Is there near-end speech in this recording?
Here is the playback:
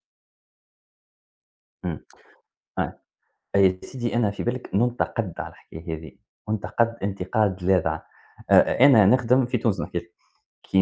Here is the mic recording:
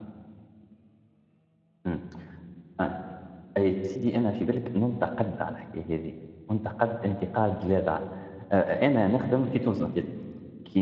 No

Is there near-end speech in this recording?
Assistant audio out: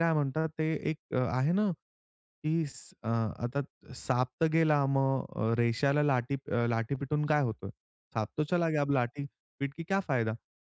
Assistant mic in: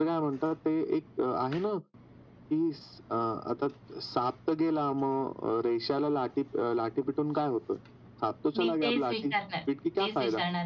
Yes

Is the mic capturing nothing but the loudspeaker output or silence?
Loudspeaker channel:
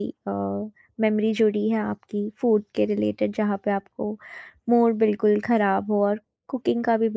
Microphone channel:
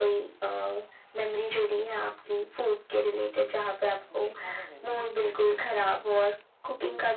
No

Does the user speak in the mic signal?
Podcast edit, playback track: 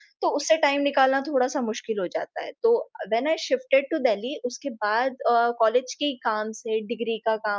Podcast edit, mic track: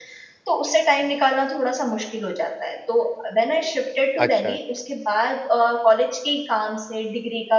Yes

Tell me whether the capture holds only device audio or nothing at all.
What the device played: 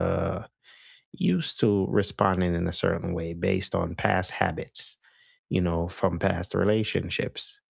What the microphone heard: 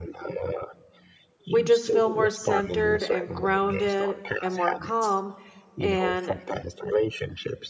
No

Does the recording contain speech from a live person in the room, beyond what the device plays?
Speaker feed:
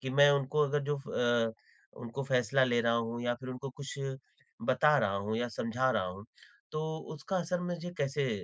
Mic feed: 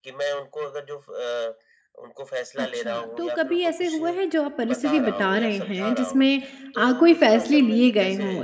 Yes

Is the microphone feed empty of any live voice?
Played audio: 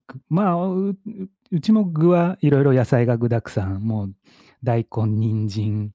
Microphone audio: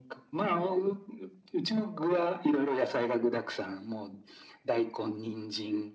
Yes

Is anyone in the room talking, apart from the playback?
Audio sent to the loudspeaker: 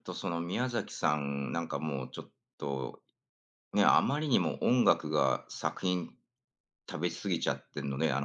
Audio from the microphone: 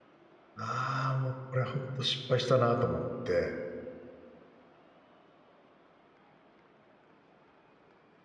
Yes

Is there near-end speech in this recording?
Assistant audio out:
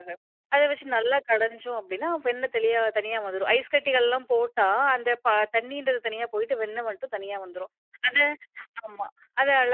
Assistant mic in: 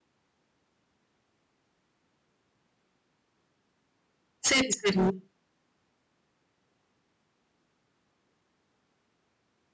Yes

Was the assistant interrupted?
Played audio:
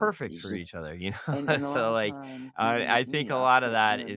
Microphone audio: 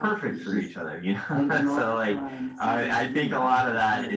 No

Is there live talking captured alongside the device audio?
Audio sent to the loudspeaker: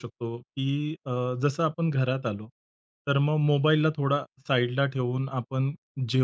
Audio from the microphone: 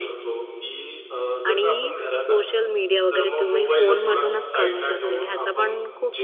Yes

